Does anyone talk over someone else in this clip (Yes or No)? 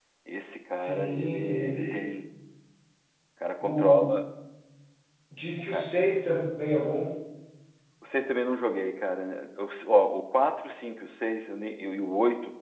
Yes